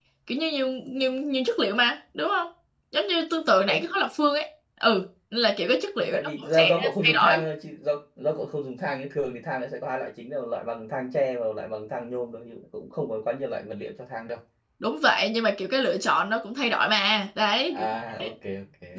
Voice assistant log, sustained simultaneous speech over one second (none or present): present